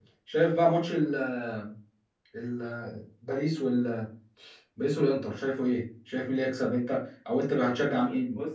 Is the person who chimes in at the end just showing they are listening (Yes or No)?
No